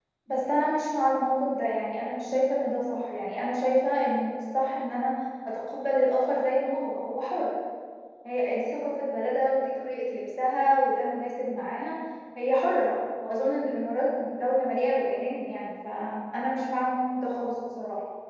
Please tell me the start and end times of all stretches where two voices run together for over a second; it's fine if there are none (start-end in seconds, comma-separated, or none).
none